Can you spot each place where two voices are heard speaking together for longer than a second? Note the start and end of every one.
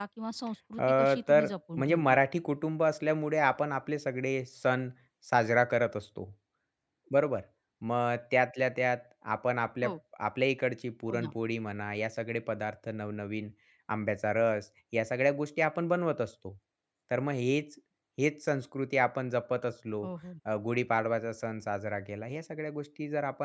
0.8-2.2

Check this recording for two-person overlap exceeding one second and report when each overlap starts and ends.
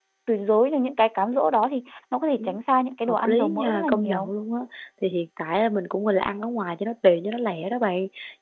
3.1-4.3

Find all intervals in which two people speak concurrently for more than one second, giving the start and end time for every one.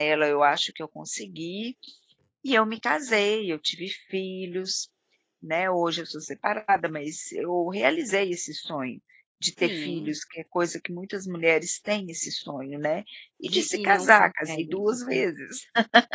13.4-15.3

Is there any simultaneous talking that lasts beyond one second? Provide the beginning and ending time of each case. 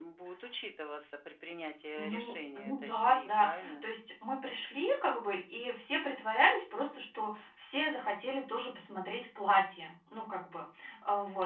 2.0-3.8

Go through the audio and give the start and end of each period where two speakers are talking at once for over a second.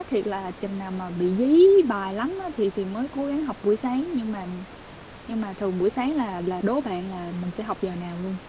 none

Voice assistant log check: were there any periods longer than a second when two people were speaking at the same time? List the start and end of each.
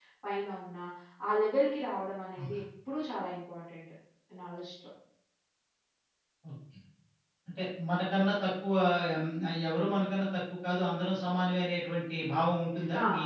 none

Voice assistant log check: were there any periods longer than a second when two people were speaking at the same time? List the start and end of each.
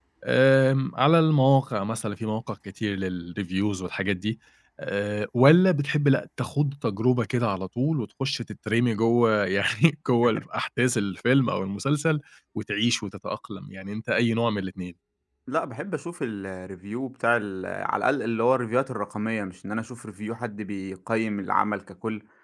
none

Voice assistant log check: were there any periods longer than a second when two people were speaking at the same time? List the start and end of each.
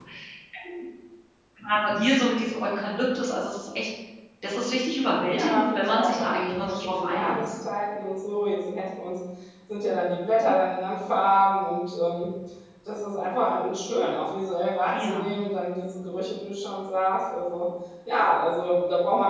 5.3-7.5

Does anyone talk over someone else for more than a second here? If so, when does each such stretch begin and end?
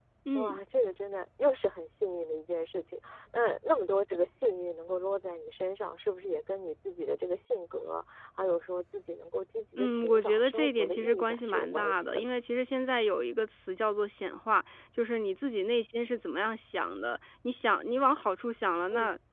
9.8-12.3

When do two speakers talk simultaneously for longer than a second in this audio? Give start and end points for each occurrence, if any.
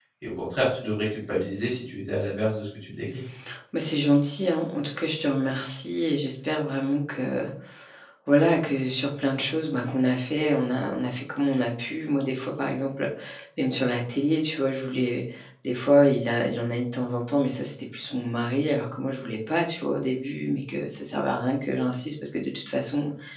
none

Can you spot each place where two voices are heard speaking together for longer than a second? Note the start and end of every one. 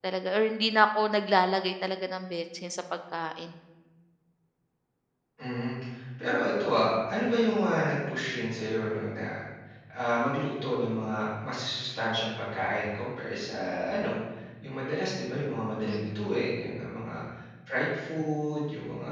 none

